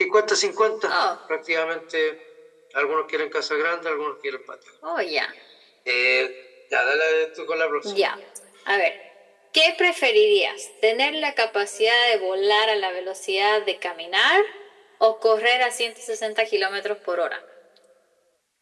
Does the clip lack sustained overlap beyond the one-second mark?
Yes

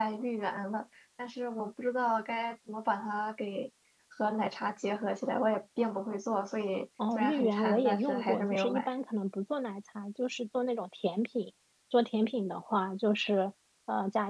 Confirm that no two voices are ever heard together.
No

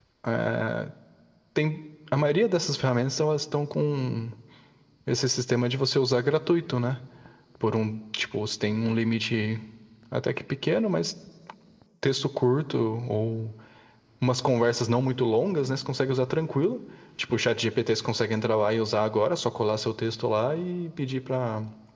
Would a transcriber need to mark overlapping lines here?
No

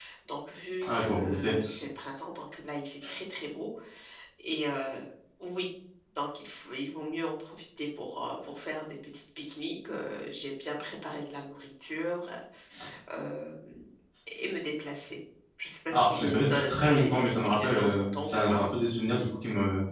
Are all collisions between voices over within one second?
No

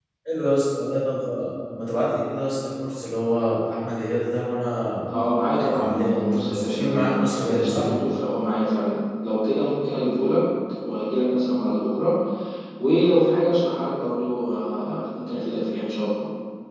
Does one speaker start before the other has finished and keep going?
Yes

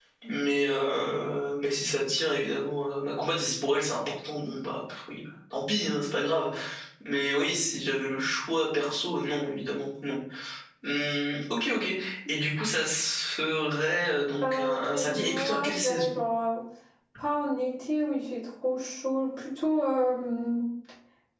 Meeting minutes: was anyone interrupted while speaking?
Yes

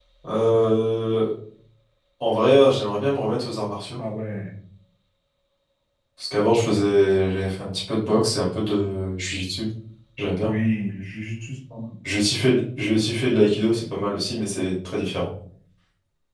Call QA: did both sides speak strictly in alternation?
Yes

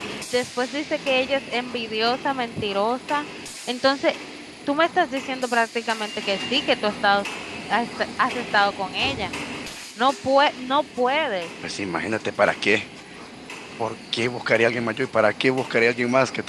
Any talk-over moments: No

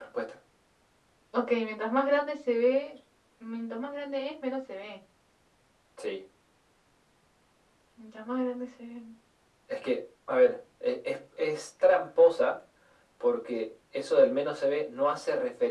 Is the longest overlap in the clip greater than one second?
No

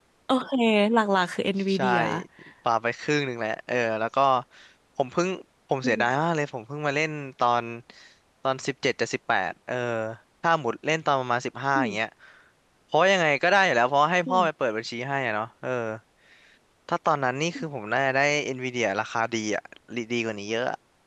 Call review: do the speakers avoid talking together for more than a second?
Yes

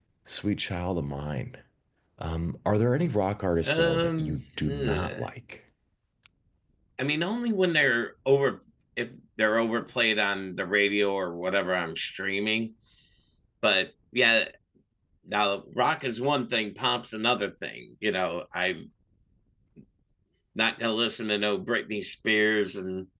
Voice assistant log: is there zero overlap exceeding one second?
No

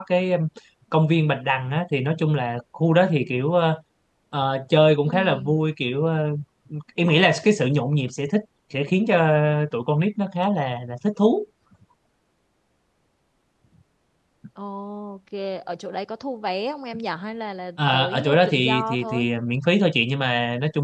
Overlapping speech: Yes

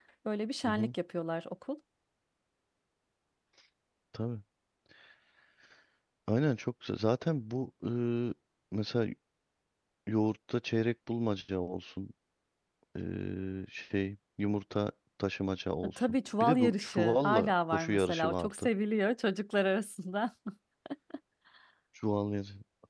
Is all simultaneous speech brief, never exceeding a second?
No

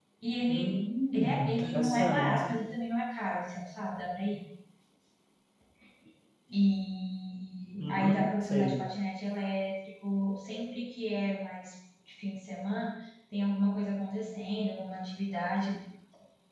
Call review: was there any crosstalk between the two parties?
Yes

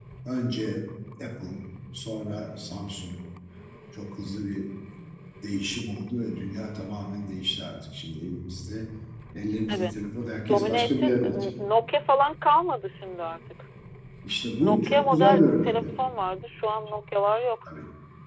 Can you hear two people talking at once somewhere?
Yes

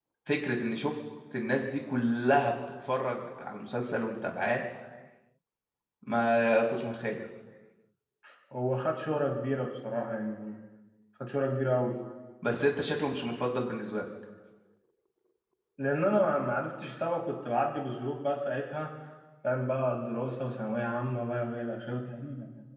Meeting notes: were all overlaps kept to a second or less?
Yes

